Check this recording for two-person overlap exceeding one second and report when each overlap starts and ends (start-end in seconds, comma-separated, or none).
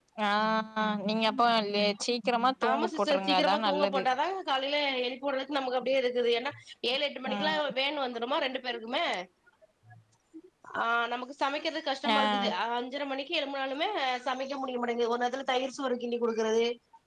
2.7-4.0